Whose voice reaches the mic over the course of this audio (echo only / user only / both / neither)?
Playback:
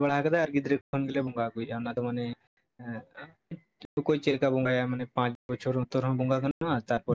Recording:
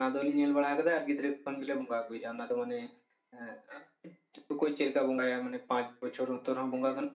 echo only